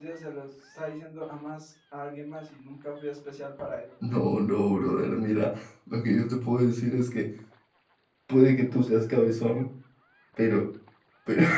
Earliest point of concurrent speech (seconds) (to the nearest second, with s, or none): none